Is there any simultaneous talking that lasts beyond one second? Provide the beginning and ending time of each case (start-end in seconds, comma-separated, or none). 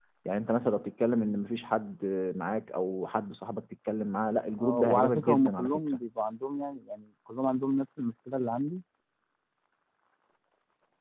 4.6-5.8